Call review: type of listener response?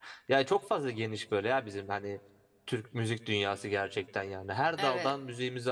listening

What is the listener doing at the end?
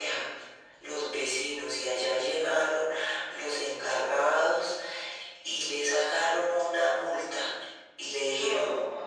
listening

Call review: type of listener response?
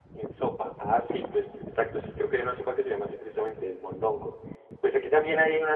listening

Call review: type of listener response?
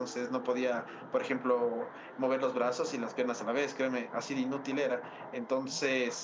listening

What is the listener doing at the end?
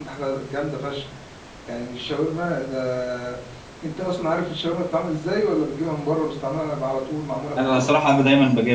taking over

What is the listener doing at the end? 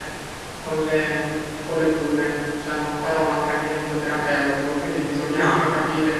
listening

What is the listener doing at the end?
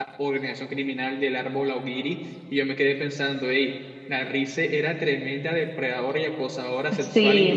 listening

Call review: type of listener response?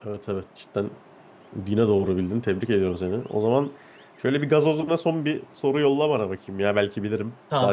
taking over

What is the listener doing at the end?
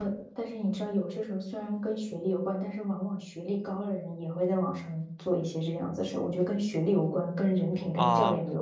taking over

